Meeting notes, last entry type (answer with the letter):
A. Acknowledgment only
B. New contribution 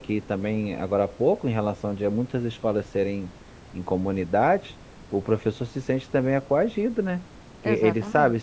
A